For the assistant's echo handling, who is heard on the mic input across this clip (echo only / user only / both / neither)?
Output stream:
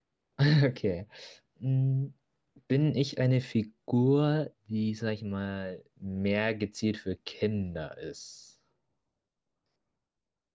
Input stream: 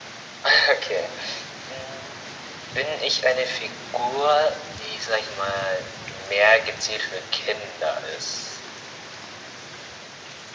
echo only